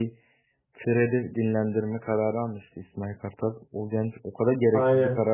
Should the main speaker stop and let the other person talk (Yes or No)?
No